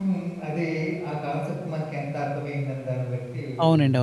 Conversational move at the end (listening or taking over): taking over